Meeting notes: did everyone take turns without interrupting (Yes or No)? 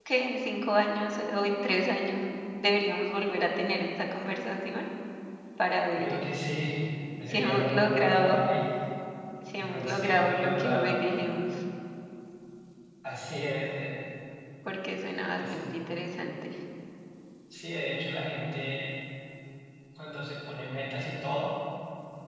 No